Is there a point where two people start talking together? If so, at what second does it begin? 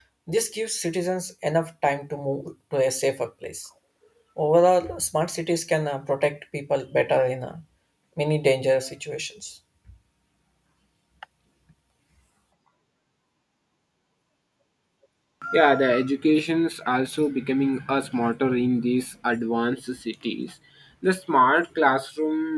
none

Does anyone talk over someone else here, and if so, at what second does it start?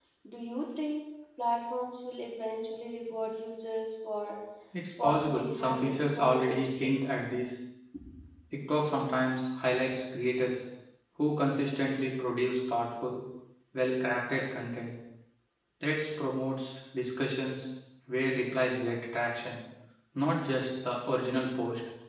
5 s

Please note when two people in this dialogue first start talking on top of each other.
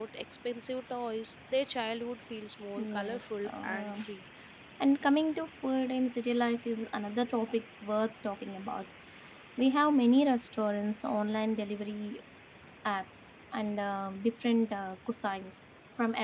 3 s

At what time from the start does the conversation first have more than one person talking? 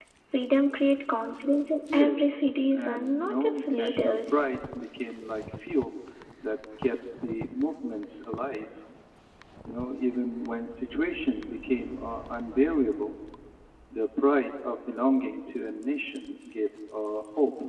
2 s

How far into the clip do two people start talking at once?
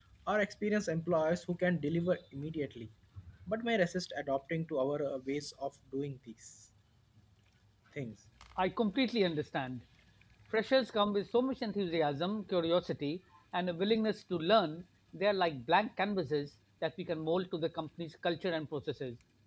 none

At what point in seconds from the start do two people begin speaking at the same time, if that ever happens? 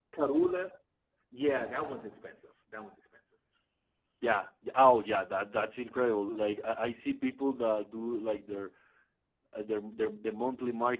none

